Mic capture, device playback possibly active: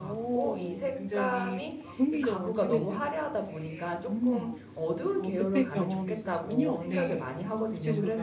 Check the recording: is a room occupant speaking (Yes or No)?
Yes